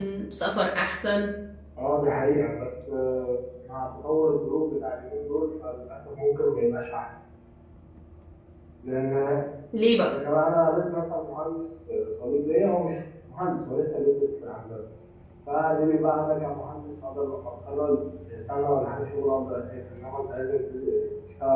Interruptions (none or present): none